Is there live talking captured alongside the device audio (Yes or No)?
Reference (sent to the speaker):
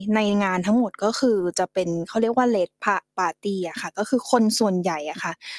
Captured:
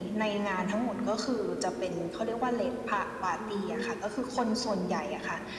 Yes